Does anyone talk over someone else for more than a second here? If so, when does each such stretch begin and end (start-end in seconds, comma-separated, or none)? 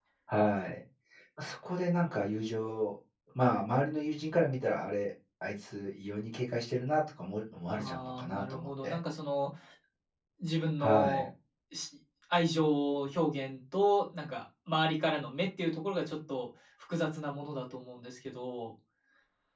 7.7-9.0